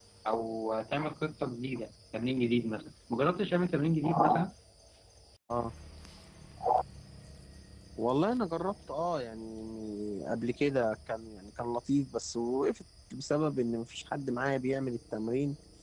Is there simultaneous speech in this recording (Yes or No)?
No